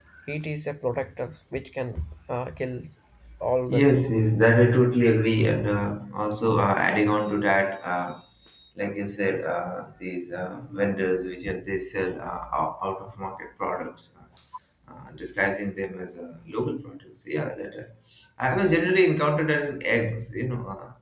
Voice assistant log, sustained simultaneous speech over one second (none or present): none